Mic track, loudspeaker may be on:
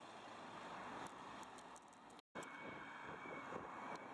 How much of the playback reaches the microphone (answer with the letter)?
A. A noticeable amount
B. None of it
B